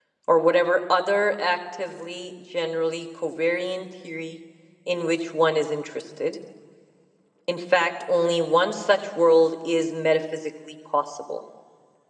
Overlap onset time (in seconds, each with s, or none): none